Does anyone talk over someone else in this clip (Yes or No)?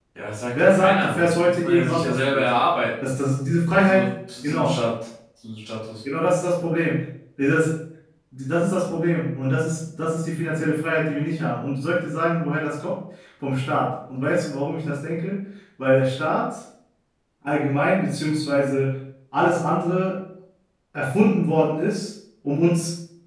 Yes